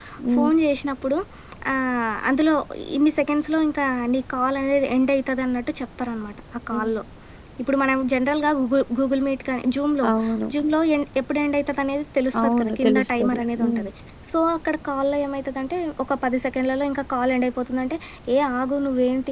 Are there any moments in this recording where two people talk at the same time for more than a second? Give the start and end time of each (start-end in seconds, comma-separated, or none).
12.4-13.9